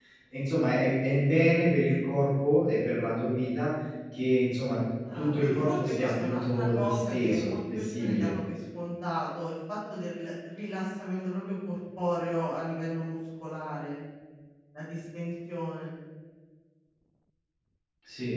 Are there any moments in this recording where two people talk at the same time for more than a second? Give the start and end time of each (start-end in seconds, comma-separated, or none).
5.1-8.3